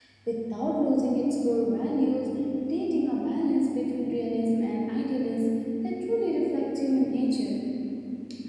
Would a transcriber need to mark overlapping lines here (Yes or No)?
No